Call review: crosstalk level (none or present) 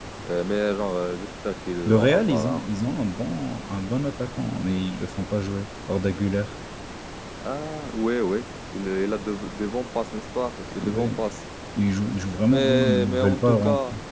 present